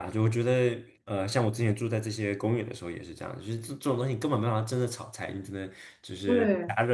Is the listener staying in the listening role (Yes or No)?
Yes